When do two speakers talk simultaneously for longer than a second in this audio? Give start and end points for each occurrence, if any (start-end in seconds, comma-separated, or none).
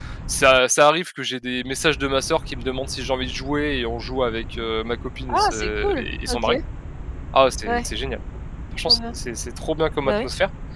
5.3-6.5